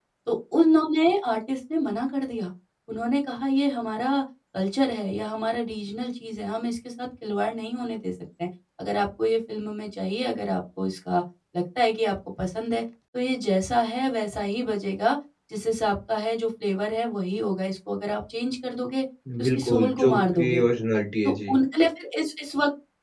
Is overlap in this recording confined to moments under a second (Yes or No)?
No